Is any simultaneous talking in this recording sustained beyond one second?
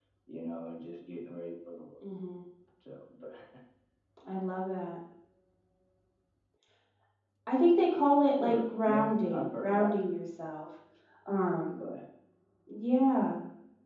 Yes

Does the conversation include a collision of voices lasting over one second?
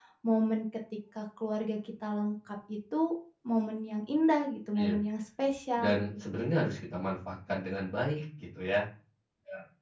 No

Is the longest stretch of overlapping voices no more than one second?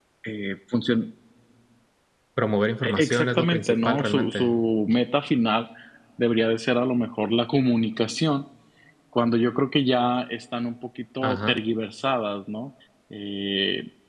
No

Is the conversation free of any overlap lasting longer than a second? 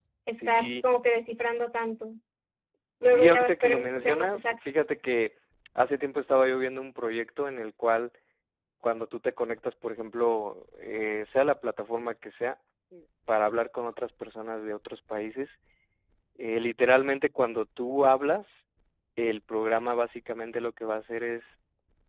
No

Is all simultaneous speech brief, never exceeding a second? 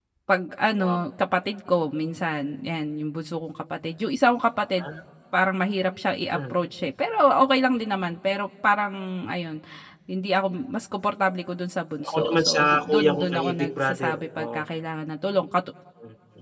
No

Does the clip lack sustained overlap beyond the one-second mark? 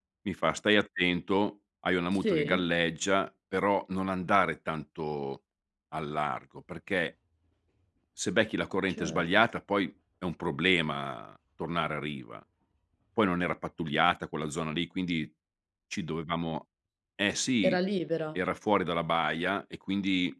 Yes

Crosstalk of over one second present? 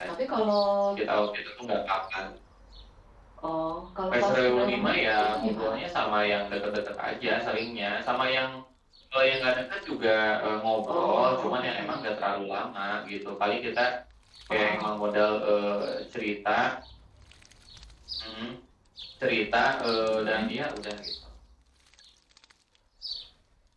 Yes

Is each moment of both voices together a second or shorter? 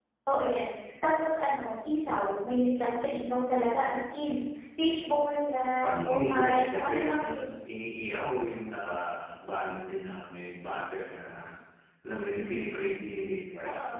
No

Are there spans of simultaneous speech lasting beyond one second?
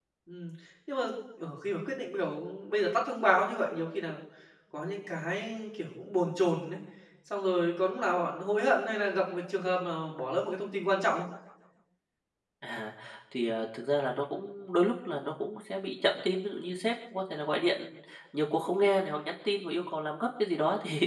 No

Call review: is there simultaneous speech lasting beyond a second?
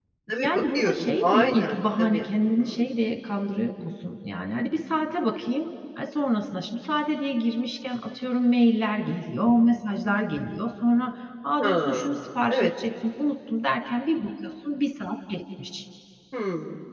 Yes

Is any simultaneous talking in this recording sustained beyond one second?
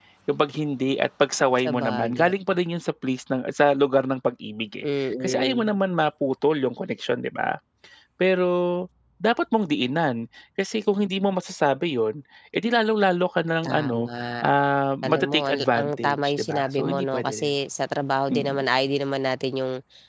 Yes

